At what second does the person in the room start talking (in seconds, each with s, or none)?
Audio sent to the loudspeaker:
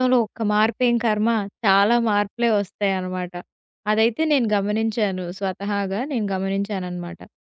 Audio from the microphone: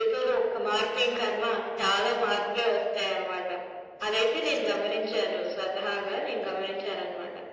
none